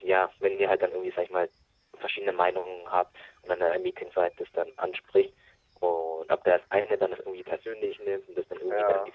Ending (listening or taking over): listening